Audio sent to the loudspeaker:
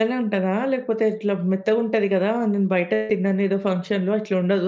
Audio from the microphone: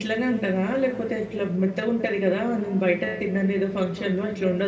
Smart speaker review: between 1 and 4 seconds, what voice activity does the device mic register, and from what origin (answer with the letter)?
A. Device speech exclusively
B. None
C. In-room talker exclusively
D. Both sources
A